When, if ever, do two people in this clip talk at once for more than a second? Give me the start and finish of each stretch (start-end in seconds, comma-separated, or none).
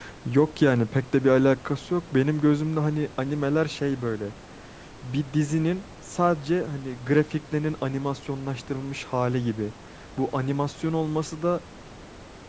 none